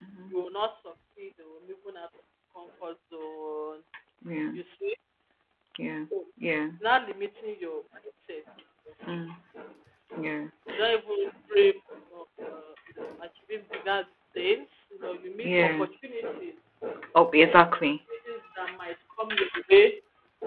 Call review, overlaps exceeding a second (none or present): none